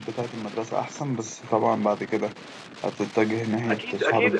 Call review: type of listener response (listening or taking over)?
taking over